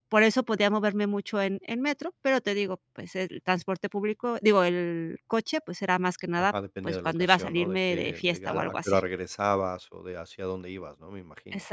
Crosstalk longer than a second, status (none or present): present